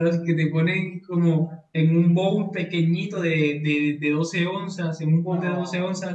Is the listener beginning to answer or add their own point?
No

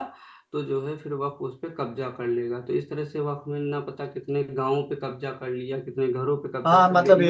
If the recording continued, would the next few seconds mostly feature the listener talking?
Yes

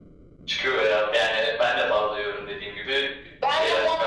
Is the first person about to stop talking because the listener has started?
Yes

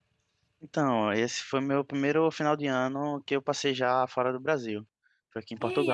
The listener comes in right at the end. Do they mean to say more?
Yes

